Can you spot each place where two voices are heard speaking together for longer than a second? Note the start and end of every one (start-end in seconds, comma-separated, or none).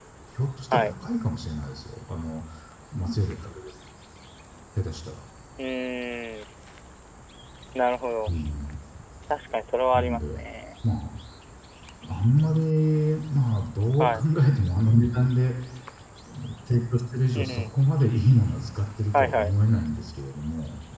none